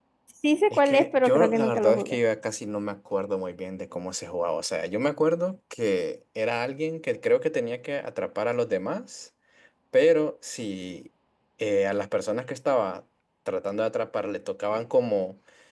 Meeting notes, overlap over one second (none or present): present